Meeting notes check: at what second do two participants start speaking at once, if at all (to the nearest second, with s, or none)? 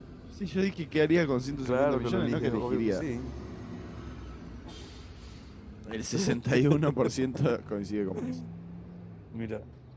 2 s